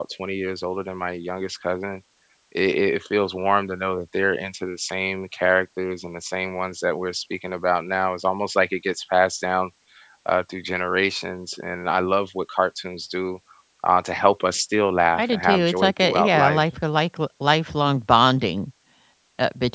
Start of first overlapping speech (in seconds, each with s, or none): 15.2 s